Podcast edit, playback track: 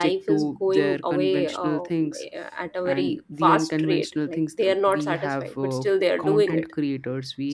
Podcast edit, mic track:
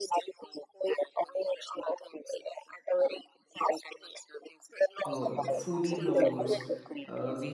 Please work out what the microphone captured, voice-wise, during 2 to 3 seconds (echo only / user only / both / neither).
echo only